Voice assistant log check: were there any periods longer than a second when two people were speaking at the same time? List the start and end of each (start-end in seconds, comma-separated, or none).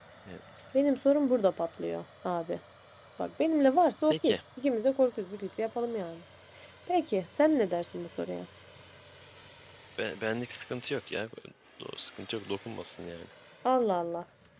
none